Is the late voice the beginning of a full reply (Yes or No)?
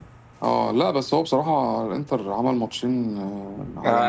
Yes